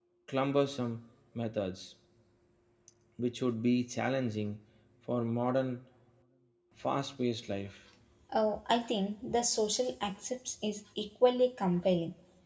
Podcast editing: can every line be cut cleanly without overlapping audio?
Yes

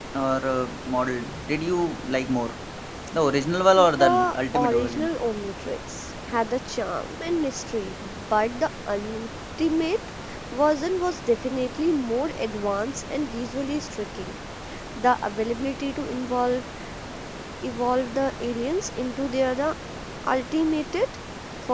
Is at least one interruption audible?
Yes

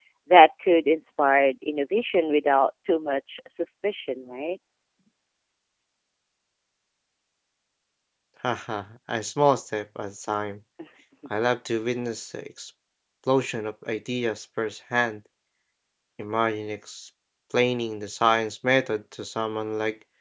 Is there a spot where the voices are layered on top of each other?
No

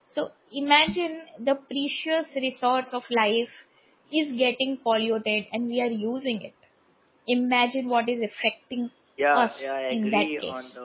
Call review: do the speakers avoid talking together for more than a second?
No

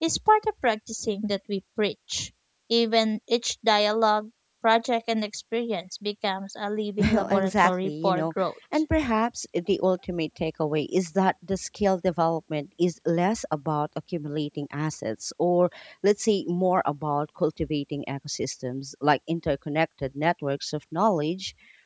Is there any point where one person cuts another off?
Yes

